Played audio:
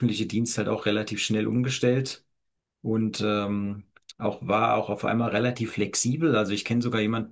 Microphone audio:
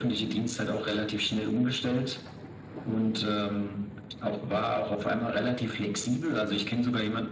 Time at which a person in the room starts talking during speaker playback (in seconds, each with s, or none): none